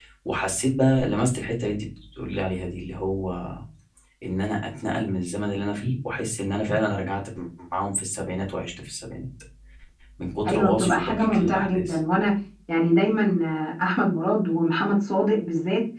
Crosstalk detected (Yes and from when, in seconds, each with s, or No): Yes, from 10.4 s